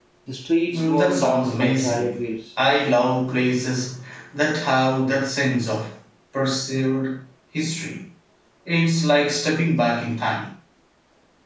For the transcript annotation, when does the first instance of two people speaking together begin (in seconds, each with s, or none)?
0.7 s